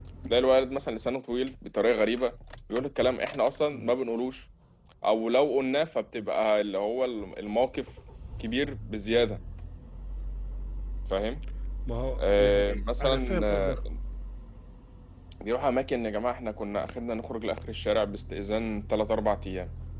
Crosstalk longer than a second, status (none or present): present